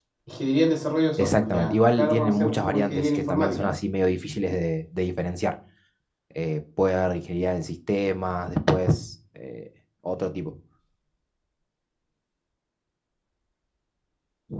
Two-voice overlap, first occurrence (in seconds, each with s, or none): 1.2 s